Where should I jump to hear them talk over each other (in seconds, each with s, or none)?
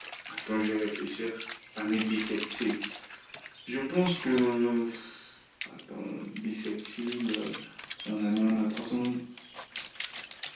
none